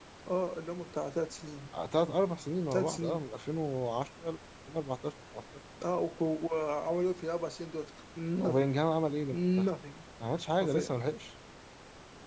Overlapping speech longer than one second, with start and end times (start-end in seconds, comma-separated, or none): none